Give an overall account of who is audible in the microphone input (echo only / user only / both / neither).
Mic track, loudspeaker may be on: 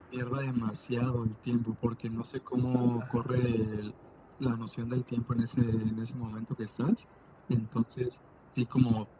both